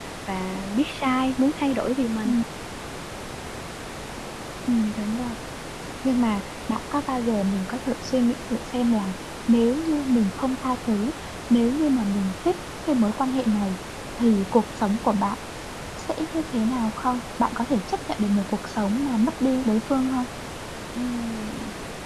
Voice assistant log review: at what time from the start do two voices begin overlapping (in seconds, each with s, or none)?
none